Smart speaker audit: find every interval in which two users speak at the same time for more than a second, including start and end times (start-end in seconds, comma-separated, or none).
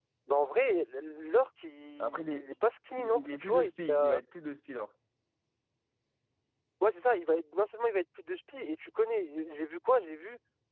3.0-4.2